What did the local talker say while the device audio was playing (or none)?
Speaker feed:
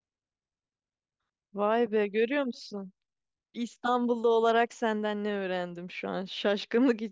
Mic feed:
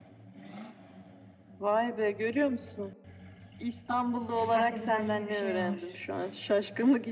Katedral gibi bir şey var.